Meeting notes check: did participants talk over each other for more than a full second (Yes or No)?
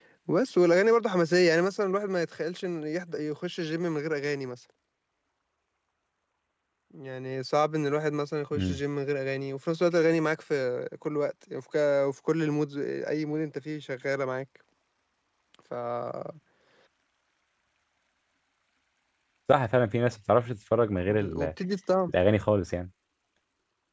No